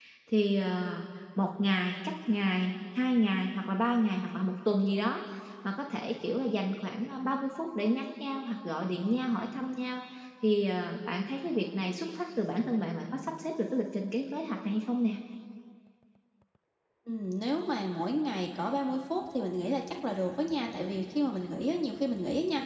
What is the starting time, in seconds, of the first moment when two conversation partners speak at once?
none

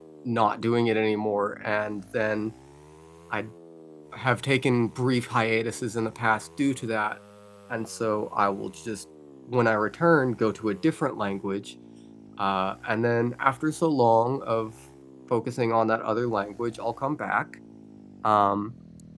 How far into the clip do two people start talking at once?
none

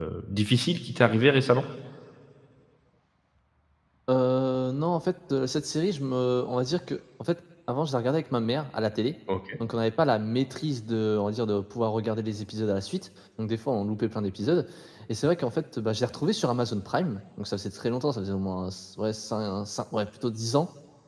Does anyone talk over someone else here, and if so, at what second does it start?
none

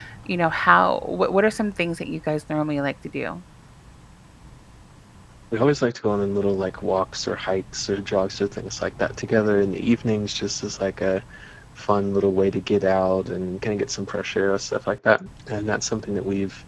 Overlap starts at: none

